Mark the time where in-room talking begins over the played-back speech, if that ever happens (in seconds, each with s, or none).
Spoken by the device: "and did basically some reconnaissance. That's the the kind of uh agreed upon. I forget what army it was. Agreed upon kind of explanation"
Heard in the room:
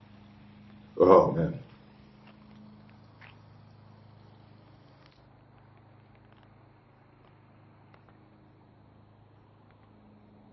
1.0 s